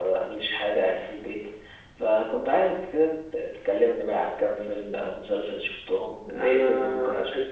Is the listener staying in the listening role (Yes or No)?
No